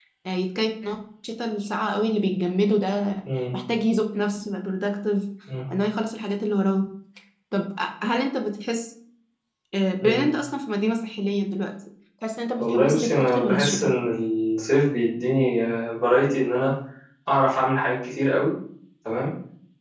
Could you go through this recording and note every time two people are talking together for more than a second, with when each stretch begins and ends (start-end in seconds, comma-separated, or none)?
12.6-13.9